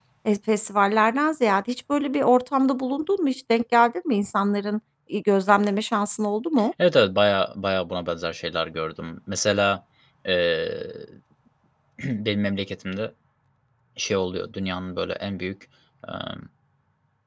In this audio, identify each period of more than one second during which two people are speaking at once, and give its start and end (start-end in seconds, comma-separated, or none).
none